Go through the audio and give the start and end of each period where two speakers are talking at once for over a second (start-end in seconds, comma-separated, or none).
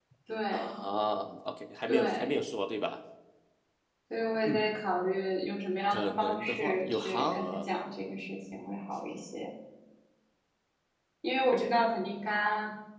5.9-7.7